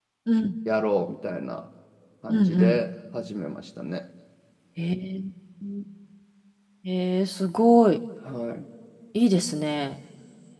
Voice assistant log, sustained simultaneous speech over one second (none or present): none